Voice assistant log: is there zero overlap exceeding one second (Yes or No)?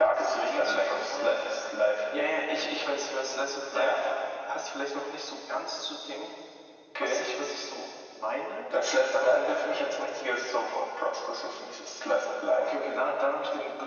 No